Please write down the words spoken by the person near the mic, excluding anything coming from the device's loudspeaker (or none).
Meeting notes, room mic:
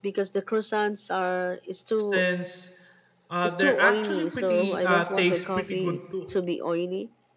since uh they're actually pretty uh taste pretty good too.